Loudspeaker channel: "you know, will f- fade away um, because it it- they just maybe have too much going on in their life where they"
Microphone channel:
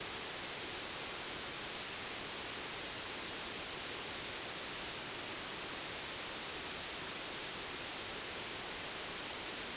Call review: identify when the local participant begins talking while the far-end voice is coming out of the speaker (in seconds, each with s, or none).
none